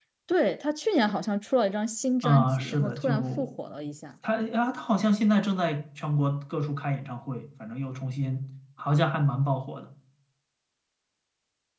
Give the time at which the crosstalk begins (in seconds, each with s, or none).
2.2 s